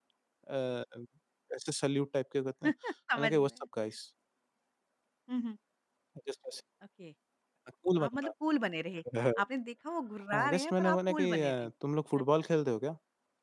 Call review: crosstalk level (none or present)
present